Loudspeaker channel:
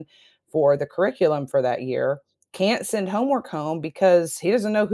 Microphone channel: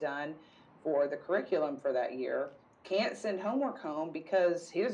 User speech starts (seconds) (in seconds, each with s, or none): none